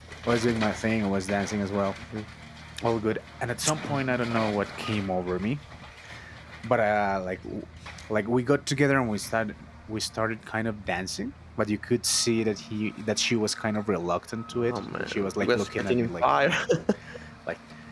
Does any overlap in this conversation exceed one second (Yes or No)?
Yes